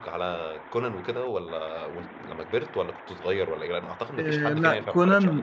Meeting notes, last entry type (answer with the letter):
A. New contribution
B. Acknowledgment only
A